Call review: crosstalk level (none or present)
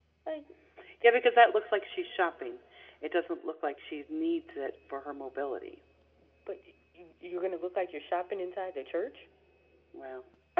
none